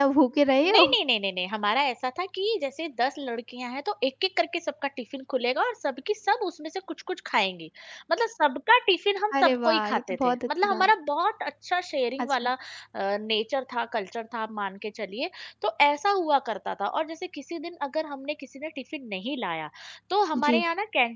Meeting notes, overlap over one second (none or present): present